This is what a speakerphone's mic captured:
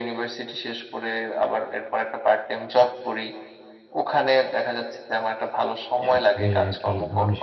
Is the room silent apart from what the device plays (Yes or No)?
No